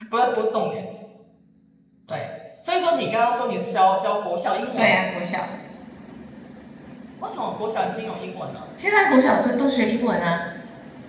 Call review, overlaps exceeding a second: none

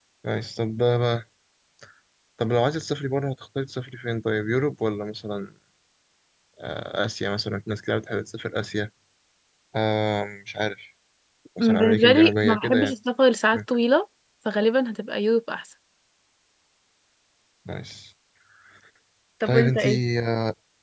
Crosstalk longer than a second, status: present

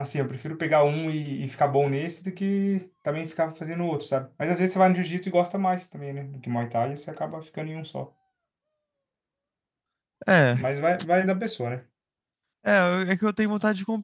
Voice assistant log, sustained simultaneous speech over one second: none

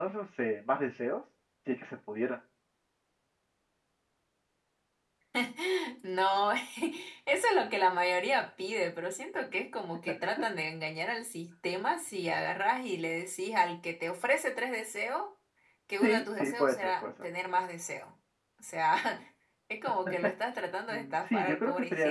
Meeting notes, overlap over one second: present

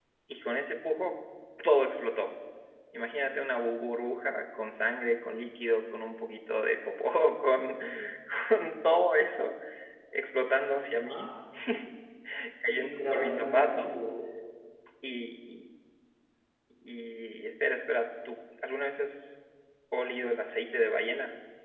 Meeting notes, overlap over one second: present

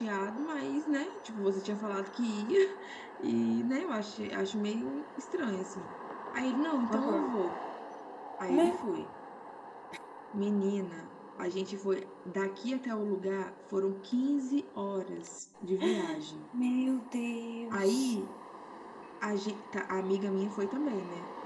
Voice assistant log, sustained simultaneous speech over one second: none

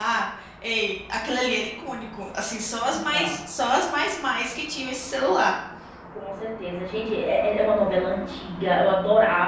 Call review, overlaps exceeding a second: none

